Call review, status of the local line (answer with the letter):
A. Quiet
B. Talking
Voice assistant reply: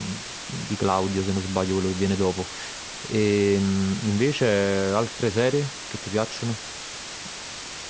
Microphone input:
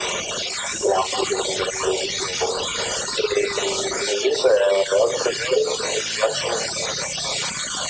A